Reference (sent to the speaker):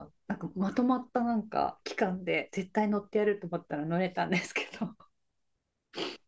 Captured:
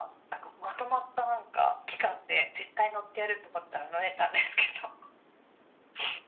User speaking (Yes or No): No